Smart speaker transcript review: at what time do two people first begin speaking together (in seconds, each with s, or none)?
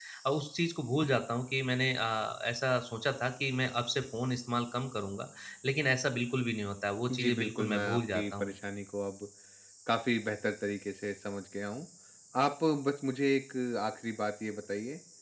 7.1 s